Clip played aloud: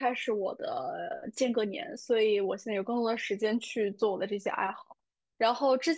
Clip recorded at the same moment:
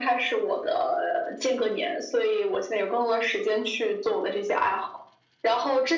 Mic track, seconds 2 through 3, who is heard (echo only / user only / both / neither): echo only